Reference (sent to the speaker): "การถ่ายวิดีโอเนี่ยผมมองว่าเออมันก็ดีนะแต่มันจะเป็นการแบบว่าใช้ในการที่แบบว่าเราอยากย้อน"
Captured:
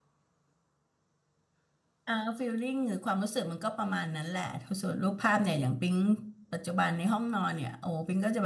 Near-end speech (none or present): present